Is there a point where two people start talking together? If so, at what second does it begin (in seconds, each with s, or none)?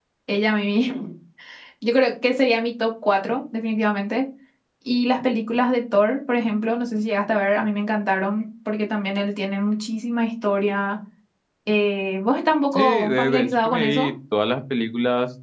12.7 s